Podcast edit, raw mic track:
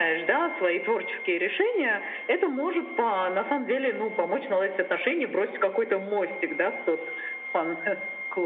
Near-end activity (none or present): none